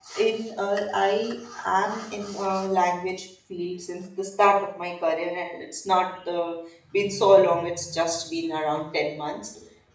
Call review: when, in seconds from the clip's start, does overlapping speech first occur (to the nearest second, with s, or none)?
none